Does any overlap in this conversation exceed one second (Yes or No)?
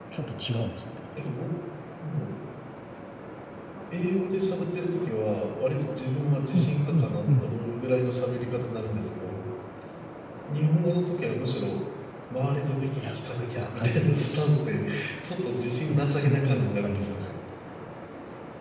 Yes